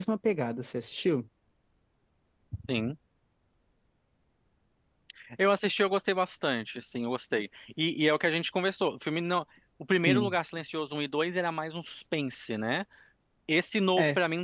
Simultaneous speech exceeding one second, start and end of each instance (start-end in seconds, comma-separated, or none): none